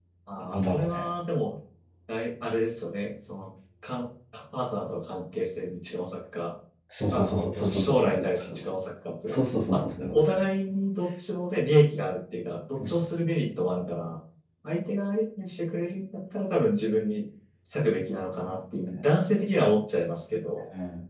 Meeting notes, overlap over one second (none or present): present